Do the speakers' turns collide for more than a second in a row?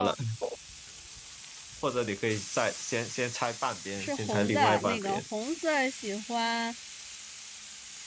Yes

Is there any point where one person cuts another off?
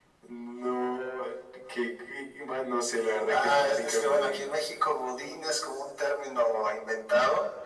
Yes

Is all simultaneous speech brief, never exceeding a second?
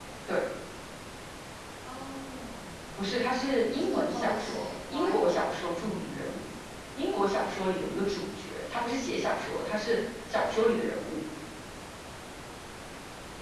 No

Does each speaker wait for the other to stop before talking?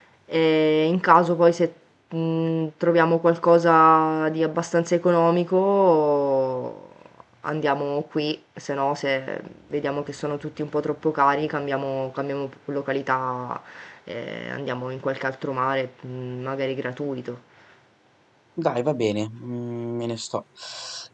Yes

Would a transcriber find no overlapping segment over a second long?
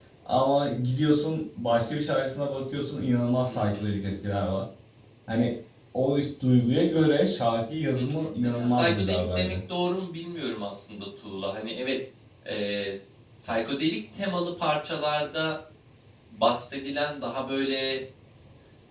No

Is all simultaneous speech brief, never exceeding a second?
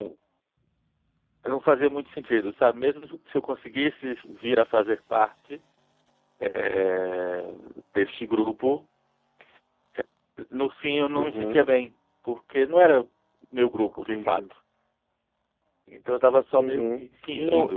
No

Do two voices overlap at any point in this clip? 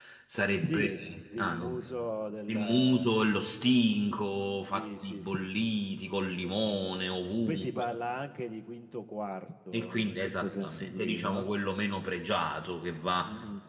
Yes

